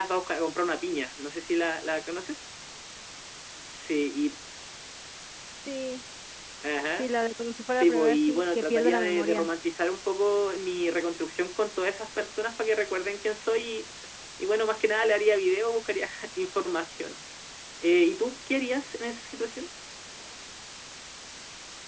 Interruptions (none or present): present